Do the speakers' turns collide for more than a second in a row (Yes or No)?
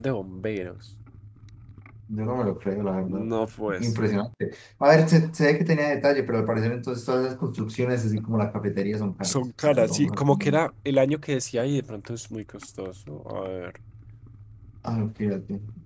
Yes